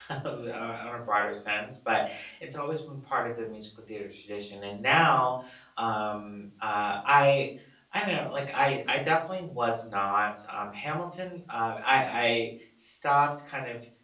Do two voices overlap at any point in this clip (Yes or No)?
No